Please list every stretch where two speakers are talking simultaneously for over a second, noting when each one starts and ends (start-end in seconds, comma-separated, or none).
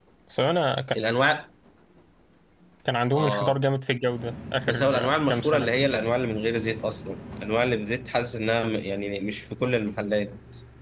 4.7-5.9